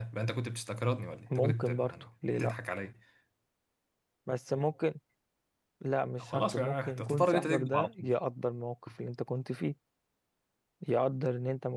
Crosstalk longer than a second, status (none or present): present